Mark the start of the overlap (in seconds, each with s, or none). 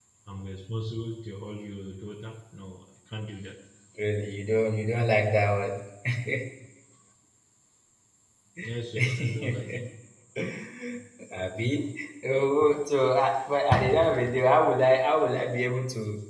8.6 s